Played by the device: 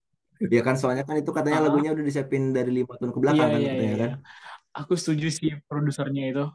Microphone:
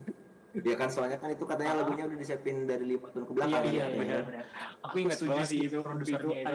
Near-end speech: present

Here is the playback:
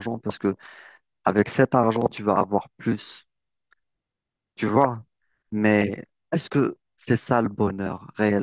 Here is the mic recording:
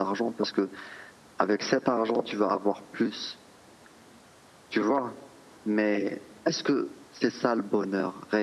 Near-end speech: none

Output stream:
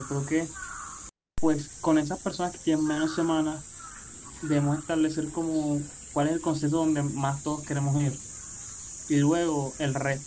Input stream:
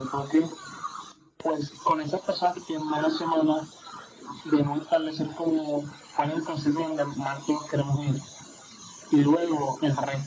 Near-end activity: none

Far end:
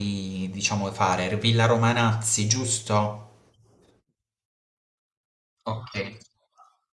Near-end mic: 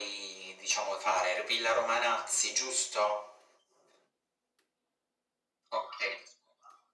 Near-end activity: none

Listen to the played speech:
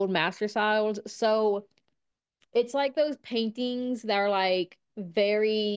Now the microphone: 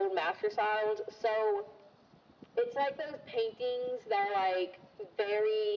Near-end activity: none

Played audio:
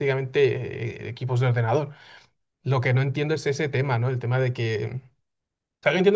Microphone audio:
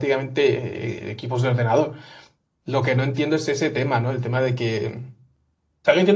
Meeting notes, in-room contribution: none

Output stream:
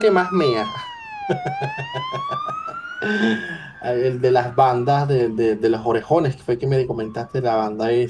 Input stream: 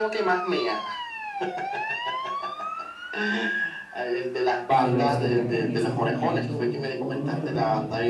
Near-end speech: present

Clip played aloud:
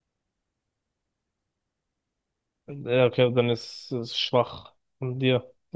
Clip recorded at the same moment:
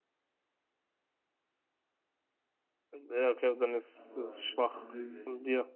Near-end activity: present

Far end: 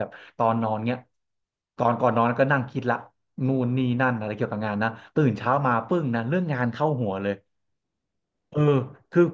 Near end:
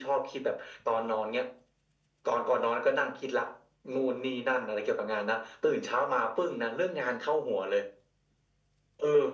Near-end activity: none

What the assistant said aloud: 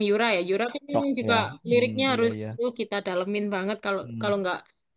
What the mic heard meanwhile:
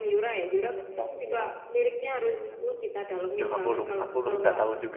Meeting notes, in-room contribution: present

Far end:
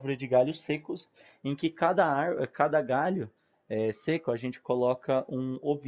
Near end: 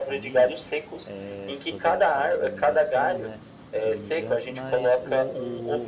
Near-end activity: present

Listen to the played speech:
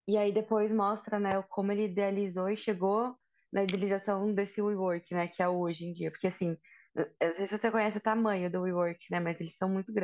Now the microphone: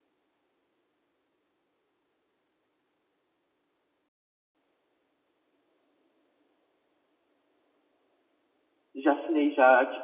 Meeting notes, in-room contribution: present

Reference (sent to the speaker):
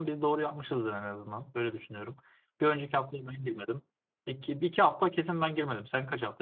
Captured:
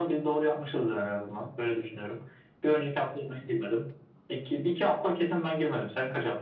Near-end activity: none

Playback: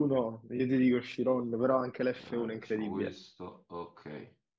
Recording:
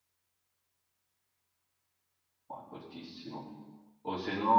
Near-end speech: present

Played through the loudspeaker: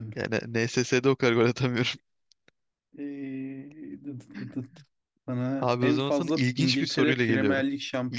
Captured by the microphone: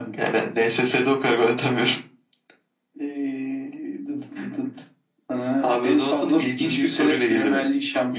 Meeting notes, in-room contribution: none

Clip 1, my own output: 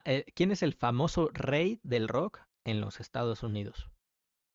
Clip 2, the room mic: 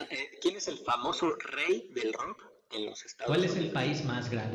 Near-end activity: present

